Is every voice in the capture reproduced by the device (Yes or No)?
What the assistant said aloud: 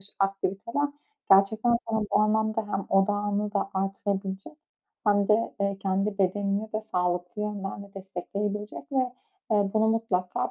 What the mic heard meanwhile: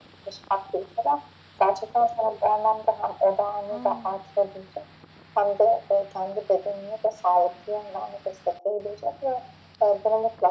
No